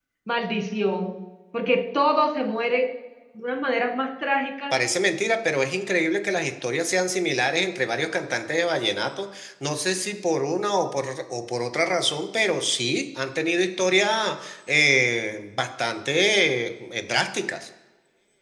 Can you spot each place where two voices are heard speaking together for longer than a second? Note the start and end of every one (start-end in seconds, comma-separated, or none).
none